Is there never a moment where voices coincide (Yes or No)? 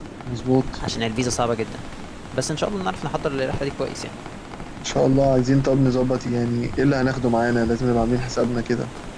Yes